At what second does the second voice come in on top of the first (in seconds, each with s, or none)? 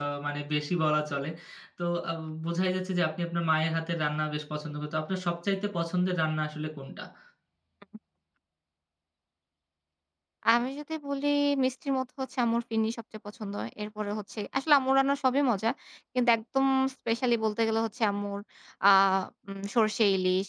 none